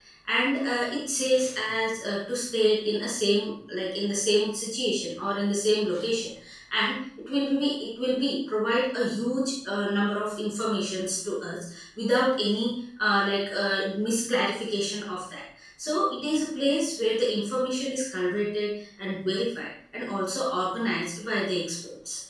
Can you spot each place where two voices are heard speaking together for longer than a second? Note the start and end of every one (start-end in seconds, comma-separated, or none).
none